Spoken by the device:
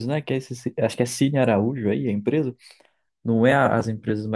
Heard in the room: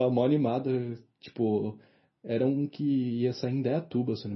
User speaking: Yes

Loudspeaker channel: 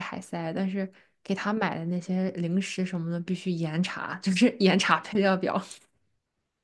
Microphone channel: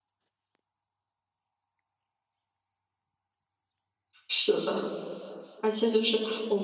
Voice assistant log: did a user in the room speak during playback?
Yes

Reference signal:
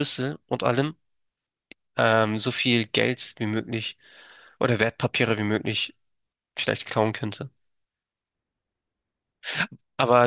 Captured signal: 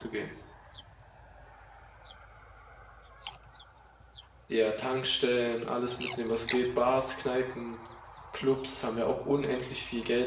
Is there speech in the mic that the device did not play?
Yes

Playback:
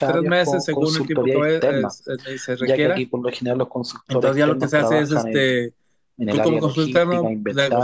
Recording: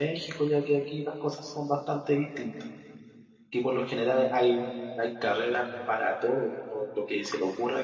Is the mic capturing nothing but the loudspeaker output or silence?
No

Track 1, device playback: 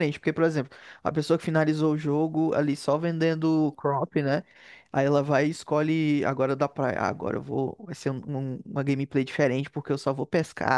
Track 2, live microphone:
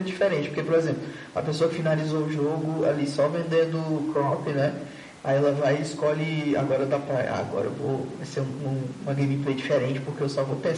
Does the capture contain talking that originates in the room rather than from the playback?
No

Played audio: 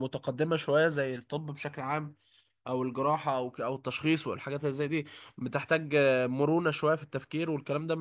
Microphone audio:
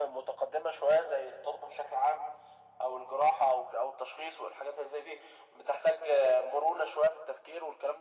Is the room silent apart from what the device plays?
Yes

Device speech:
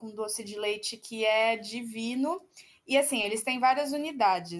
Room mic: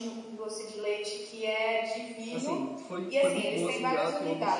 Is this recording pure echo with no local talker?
No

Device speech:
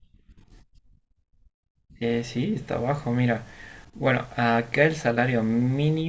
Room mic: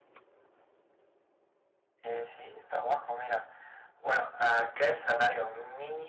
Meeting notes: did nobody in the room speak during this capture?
Yes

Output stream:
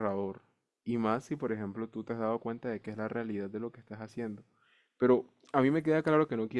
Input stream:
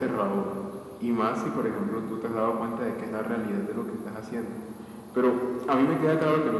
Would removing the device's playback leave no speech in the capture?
Yes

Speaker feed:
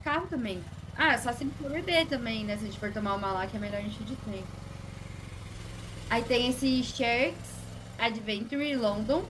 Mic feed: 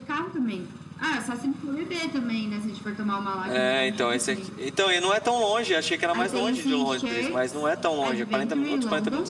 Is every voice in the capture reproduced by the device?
No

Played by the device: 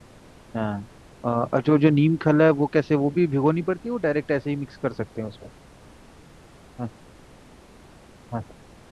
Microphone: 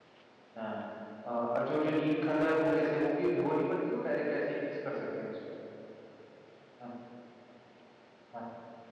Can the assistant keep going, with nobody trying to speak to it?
Yes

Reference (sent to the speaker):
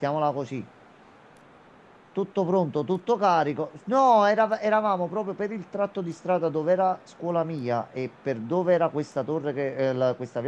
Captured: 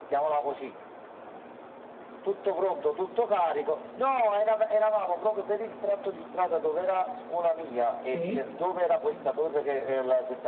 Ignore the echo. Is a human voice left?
Yes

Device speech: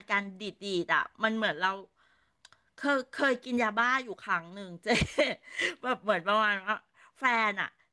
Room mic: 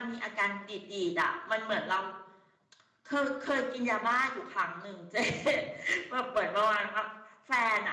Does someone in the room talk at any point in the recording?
No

